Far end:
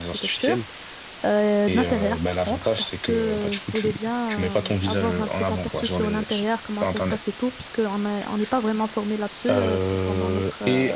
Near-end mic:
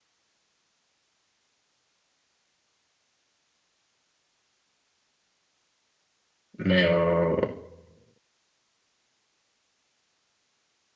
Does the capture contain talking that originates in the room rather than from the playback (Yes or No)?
Yes